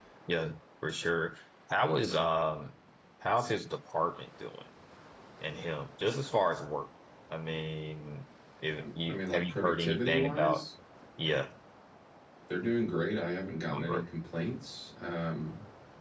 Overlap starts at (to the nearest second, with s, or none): 9 s